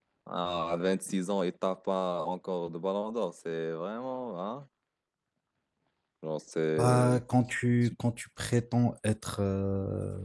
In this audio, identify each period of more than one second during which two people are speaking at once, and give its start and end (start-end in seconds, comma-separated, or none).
none